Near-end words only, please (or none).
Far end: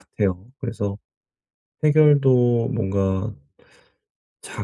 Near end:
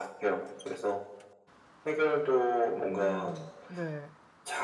음 네.